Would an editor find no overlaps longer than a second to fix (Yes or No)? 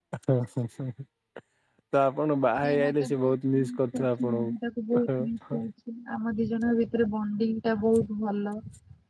No